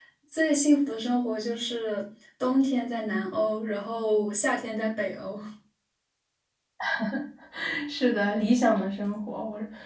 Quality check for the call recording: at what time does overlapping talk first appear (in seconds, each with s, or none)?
none